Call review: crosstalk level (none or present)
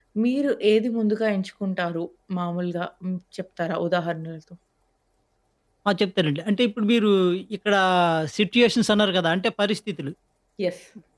none